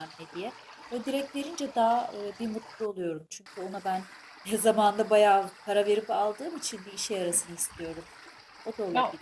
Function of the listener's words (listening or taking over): taking over